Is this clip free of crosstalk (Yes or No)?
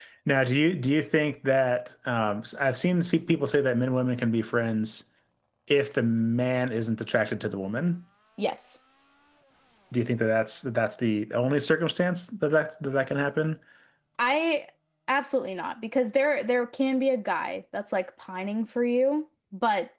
Yes